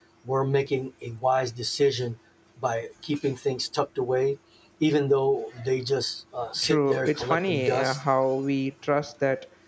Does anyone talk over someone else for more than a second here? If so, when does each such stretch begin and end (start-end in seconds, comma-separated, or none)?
6.6-8.0